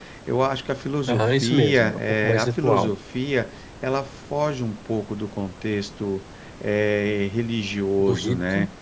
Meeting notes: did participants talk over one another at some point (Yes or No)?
Yes